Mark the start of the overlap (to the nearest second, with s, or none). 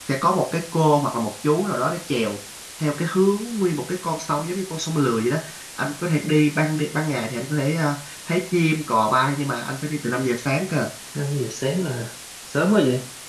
none